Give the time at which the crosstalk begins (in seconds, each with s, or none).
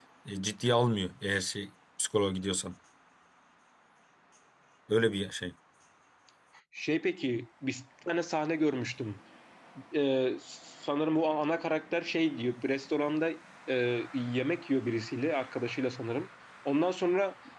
none